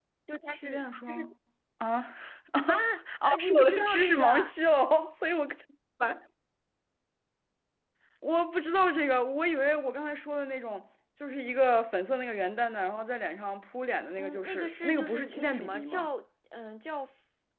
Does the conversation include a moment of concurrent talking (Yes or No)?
Yes